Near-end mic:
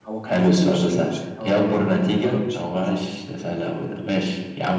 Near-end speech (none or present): present